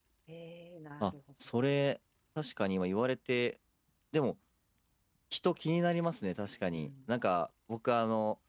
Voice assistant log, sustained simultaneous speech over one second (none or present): none